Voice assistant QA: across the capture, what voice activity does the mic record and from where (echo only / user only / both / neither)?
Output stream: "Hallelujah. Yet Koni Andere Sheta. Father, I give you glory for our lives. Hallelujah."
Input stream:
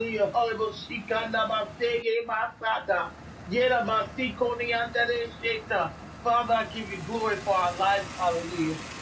echo only